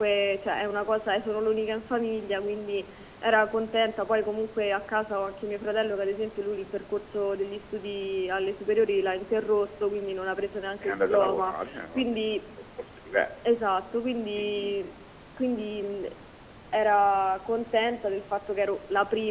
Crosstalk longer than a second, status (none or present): present